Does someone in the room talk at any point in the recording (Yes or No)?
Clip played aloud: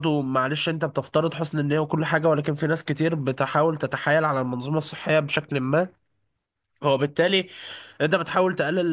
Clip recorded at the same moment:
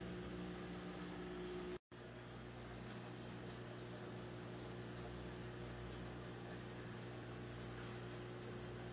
No